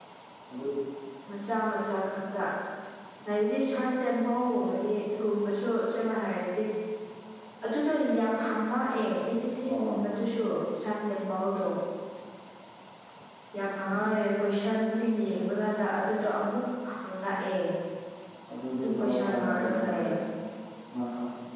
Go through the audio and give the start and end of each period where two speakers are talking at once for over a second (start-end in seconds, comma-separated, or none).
18.8-20.1